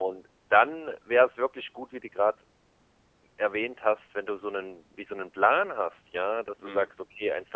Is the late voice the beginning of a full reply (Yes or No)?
No